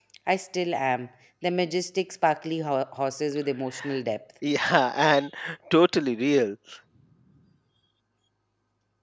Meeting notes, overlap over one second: none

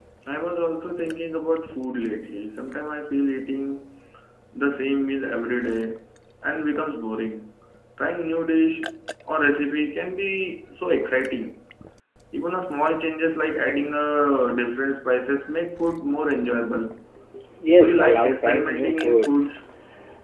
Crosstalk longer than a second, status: present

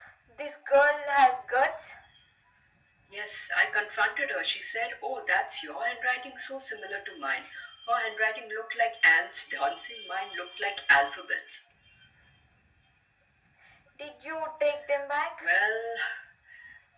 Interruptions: none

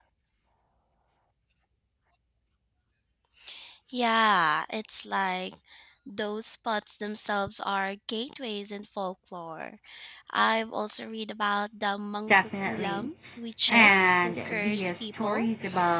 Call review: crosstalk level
present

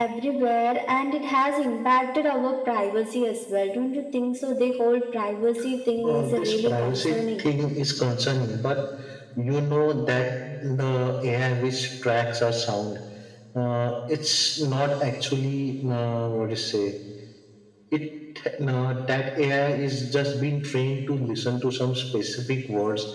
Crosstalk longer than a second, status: present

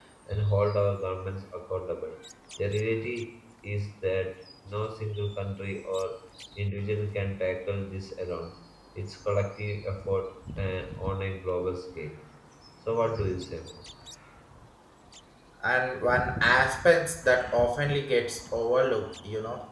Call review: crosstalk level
none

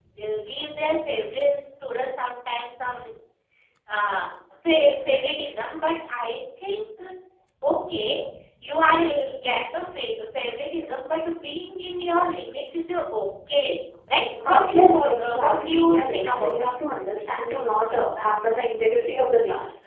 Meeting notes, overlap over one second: present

